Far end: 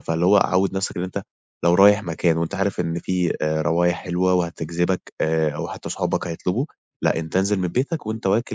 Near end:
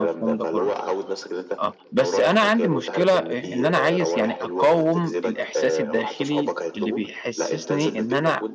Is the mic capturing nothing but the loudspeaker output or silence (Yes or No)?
No